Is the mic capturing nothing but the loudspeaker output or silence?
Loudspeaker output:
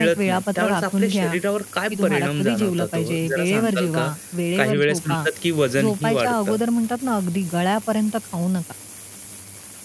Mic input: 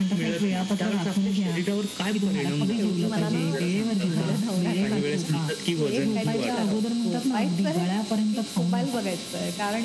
No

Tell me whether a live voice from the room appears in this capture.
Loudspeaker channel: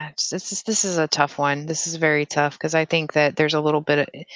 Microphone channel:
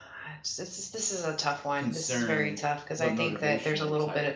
Yes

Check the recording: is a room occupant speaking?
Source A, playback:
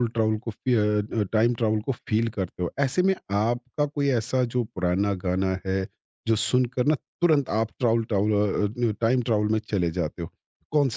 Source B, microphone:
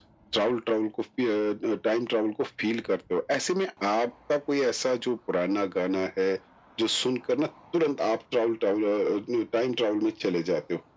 No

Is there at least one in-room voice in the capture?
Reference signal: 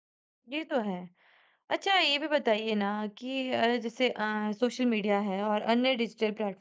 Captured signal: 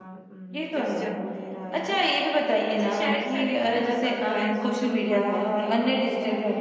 Yes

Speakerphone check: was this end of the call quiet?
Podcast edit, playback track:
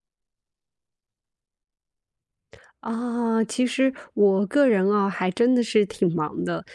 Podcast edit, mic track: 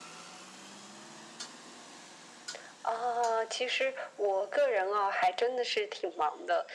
Yes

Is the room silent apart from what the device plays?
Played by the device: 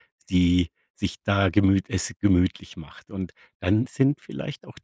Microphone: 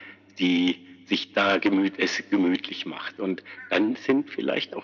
Yes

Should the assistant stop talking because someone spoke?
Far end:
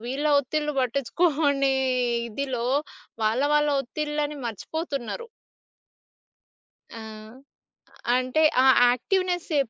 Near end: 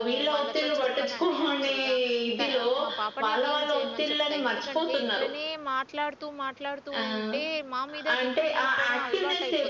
Yes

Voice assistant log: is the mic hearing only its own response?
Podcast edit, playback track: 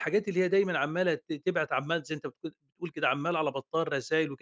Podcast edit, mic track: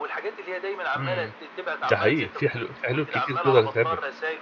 No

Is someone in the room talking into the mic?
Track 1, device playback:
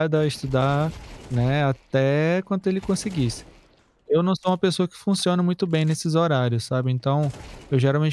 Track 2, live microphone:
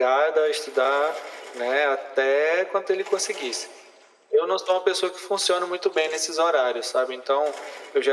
No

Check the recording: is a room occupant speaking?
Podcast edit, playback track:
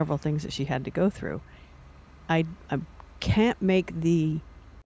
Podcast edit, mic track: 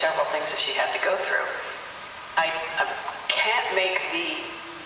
No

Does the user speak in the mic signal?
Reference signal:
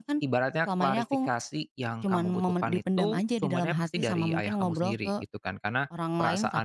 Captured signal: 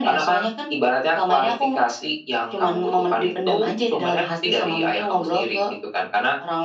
No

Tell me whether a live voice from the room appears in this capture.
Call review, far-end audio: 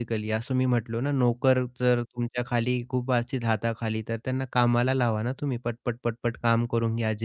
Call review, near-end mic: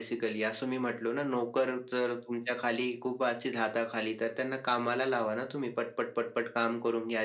No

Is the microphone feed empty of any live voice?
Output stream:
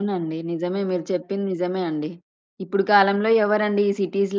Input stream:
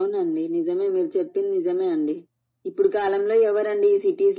Yes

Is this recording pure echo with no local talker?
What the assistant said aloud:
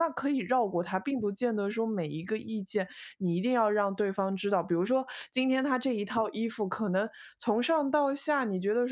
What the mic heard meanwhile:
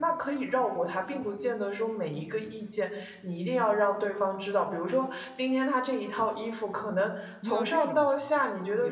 No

